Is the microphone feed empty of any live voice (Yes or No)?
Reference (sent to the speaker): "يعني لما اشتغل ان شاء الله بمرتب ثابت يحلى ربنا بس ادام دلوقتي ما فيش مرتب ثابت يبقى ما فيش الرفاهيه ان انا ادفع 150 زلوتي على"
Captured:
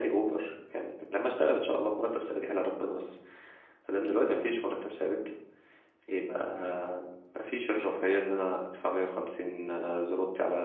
Yes